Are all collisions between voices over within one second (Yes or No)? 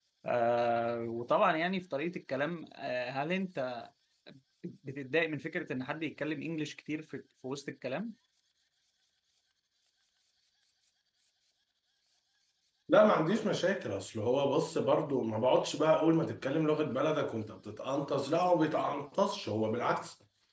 Yes